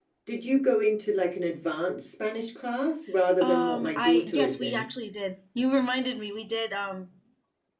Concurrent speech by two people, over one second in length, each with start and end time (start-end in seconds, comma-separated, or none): 3.4-4.8